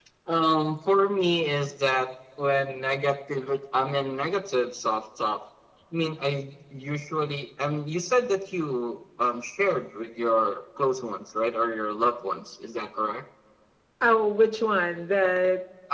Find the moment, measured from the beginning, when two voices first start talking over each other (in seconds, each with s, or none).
none